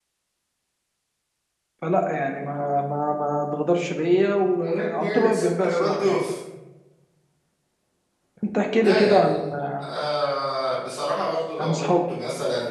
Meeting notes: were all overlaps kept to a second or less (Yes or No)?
No